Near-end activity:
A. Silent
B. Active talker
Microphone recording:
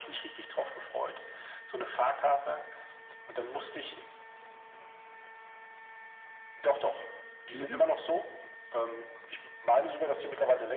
B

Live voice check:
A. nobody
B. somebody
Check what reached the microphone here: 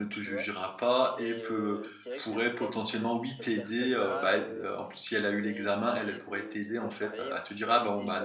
B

